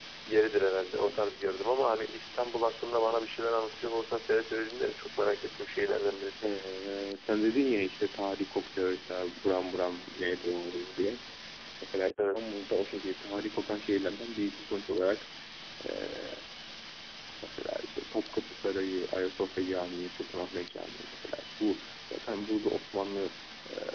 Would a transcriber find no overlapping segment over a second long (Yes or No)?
Yes